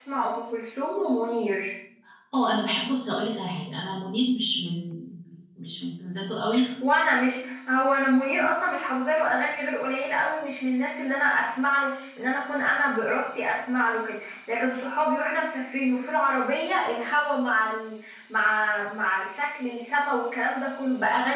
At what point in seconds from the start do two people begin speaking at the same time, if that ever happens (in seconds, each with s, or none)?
none